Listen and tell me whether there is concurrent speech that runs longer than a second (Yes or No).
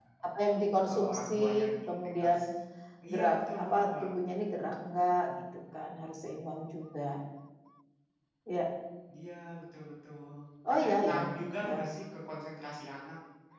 Yes